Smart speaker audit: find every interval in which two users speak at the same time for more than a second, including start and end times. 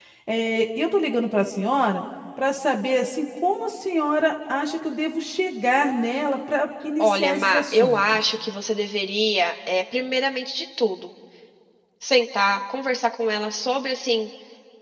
7.0-8.2

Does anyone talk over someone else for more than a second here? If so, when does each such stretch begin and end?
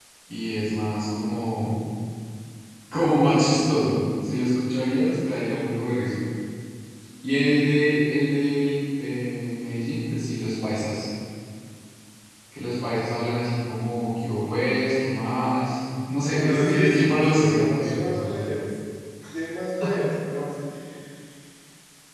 16.4-18.6

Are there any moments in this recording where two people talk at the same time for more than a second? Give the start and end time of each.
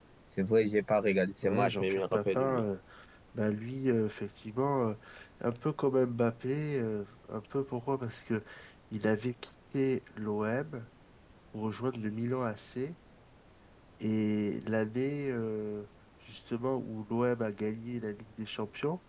1.4-2.7

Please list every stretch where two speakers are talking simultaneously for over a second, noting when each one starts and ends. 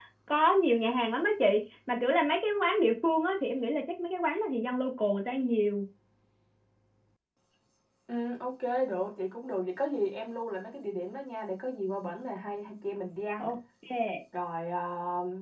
none

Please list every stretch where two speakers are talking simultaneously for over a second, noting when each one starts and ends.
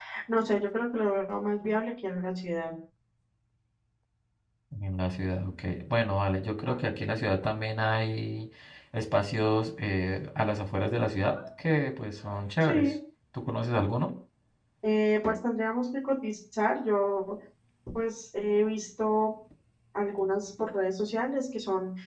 none

